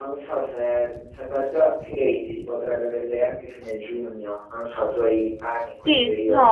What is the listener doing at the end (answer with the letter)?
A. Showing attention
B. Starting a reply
B